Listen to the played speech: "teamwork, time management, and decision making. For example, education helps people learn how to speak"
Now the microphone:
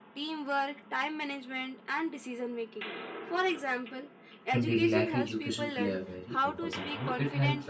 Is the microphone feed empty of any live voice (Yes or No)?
No